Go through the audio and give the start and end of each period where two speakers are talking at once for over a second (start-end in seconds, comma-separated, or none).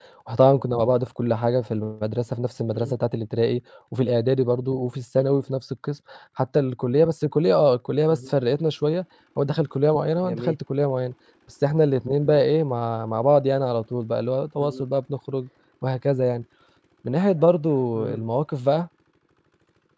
none